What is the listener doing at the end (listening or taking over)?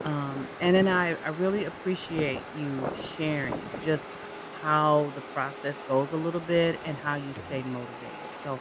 listening